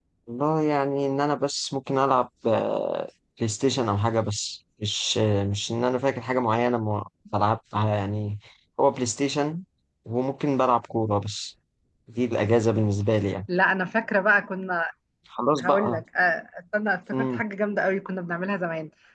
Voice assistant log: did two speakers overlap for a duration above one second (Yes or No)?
No